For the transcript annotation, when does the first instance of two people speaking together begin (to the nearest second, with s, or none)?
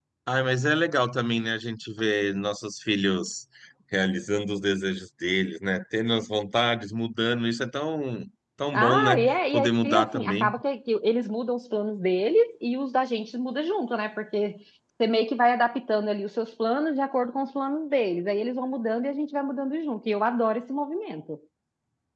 9 s